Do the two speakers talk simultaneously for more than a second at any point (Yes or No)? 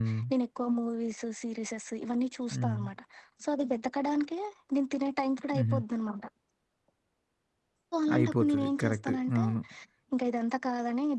Yes